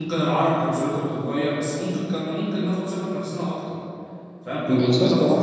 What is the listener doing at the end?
listening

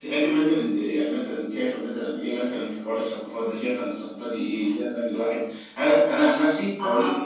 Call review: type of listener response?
listening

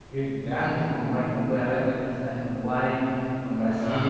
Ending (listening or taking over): listening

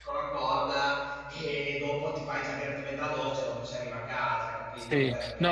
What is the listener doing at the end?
taking over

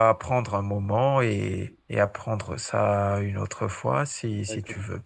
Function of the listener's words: taking over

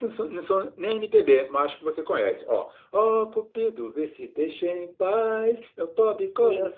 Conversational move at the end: listening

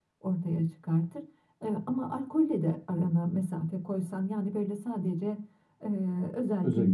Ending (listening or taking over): listening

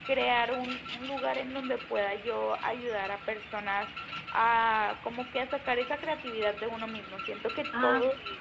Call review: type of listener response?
listening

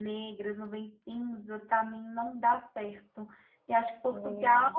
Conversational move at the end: listening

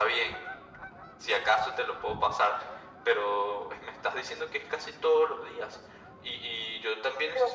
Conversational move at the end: listening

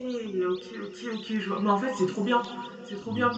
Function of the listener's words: listening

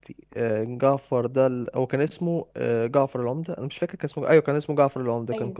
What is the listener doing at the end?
listening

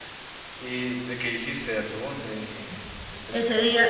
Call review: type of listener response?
taking over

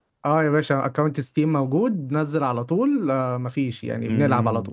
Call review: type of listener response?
taking over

